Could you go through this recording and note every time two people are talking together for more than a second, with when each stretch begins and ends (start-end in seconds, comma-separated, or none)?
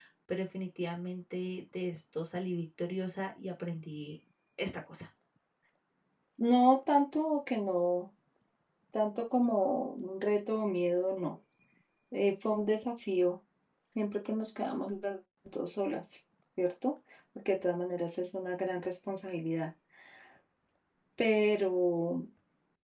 none